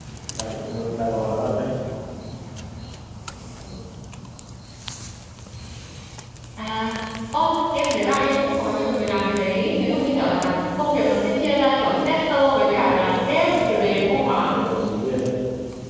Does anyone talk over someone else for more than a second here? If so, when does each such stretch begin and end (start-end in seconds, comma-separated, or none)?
12.7-14.6